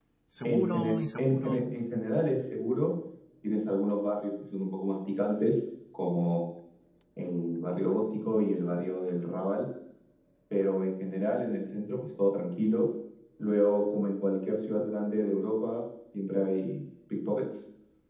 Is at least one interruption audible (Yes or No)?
Yes